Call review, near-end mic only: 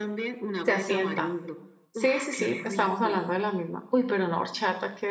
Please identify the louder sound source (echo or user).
user